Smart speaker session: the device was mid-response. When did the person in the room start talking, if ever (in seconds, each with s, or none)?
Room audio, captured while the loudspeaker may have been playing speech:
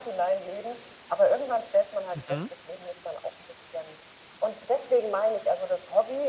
2.1 s